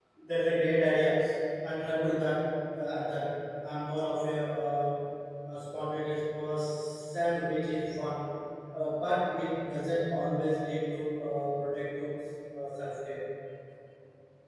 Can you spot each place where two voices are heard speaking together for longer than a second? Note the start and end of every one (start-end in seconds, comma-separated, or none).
none